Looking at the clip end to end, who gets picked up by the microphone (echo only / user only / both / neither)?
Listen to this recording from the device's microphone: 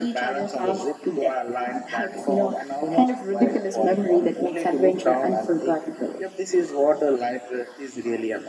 echo only